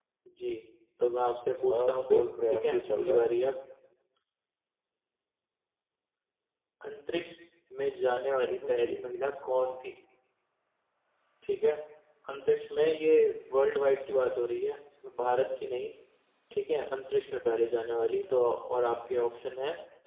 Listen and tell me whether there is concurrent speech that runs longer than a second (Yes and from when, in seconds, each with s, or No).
Yes, from 1.7 s